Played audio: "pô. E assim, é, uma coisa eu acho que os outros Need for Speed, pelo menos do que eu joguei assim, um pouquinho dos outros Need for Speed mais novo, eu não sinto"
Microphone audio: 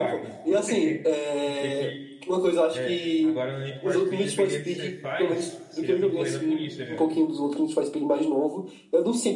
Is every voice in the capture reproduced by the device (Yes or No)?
No